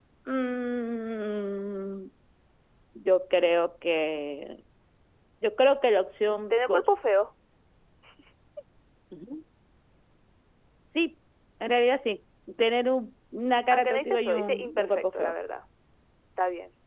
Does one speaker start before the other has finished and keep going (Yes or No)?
Yes